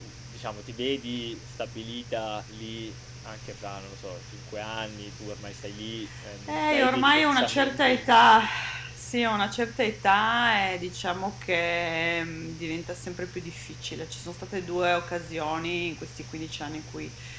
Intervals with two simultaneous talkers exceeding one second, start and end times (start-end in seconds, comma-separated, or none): 6.5-8.1